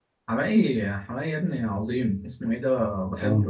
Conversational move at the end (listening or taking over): listening